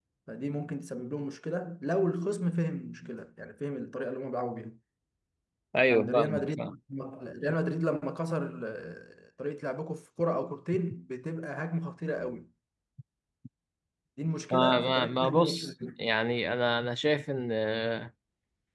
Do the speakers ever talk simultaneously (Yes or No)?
Yes